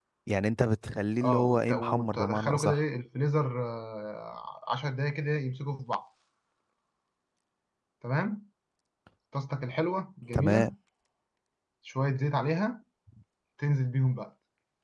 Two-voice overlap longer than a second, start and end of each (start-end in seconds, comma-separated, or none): 1.2-2.8